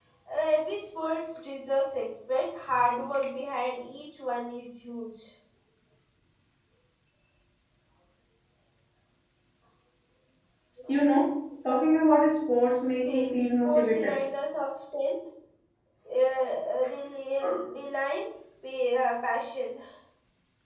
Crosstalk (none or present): present